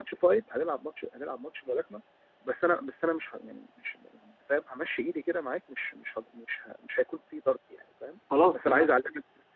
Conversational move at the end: listening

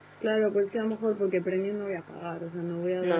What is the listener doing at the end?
listening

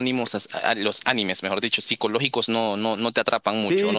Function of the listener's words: taking over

